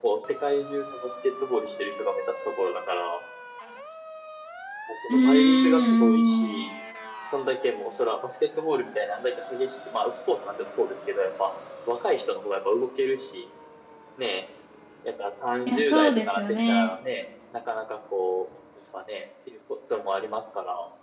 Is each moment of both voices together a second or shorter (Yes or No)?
No